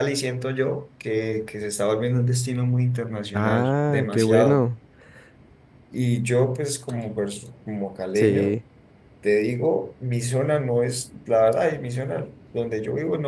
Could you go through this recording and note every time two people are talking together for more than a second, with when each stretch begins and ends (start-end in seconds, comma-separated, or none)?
3.3-4.6